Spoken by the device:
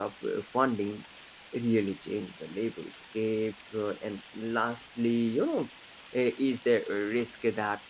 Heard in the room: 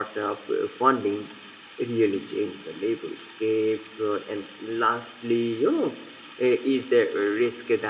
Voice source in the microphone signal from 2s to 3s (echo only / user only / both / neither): echo only